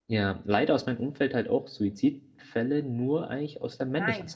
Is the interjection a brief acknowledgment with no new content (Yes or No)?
Yes